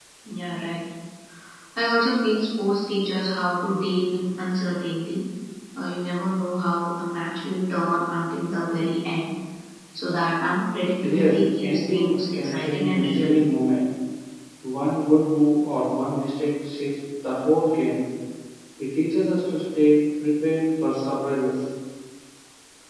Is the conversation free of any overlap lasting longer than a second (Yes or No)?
No